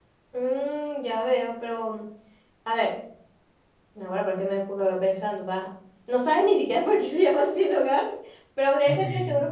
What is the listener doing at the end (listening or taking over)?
listening